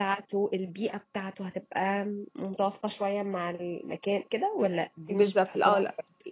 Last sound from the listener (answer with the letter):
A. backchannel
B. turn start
B